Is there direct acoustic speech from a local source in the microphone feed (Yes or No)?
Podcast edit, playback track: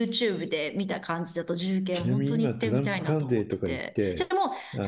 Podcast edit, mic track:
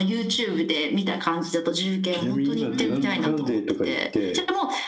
Yes